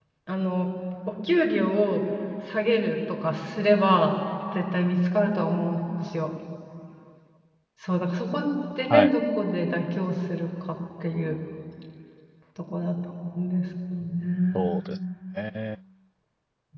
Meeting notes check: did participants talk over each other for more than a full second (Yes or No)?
No